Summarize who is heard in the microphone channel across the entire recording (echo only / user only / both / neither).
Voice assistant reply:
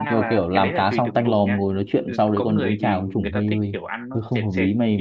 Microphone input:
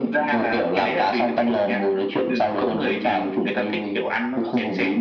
echo only